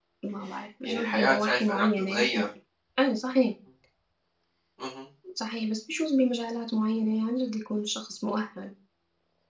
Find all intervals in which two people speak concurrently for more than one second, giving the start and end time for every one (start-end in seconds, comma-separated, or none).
0.8-2.2